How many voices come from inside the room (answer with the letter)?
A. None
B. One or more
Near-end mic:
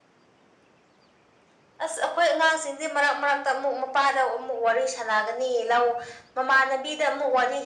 A